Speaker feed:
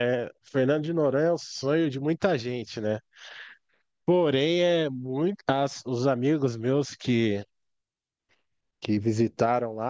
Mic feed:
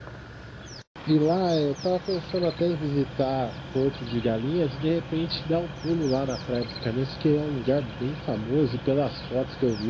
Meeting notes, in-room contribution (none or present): present